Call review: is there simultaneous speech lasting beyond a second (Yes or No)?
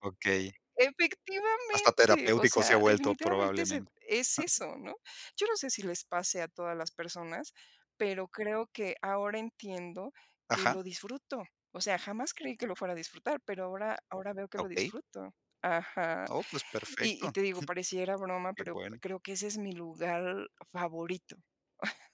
Yes